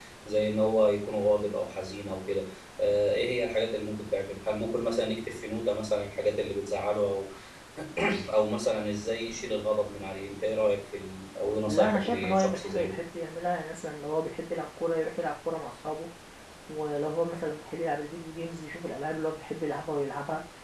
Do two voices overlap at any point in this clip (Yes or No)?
Yes